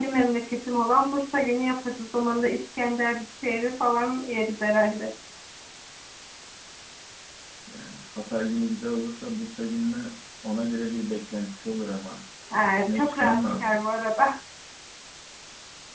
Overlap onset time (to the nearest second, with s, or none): 13 s